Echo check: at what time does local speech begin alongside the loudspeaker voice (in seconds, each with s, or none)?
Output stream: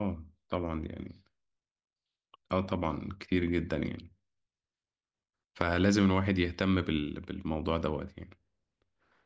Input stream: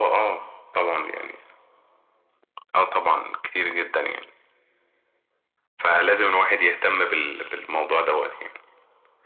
none